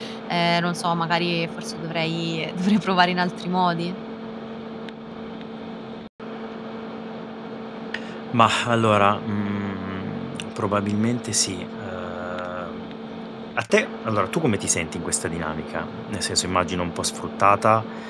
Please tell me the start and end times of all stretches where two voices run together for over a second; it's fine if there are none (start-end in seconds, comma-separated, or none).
none